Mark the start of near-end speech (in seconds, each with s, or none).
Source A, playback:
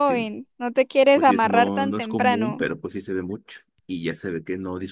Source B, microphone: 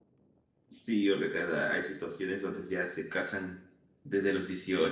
0.7 s